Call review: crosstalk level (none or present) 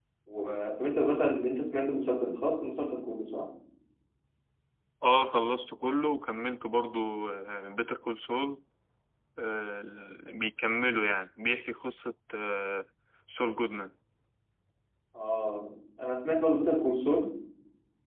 none